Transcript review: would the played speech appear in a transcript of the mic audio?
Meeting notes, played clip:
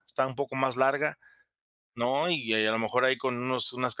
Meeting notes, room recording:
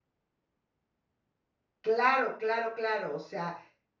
No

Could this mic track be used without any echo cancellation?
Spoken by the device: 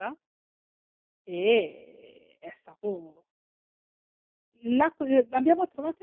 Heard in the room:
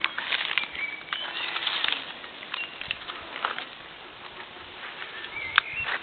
Yes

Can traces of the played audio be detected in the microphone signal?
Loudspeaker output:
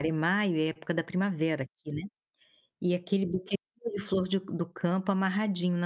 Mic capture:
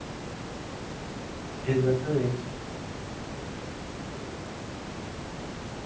No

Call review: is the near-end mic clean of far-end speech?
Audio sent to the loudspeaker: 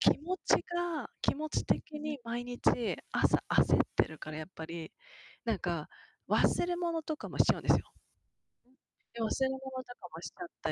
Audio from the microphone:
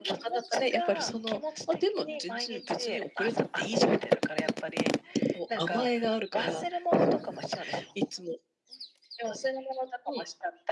No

